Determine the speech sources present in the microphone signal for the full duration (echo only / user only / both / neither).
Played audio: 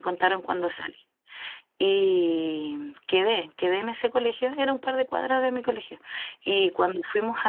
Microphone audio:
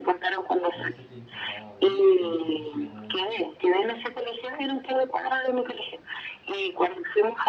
both